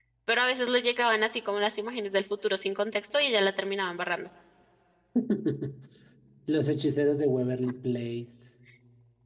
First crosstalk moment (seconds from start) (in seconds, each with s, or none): none